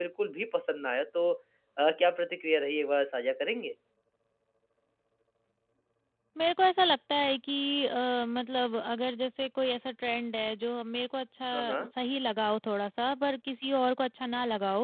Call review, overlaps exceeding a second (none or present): none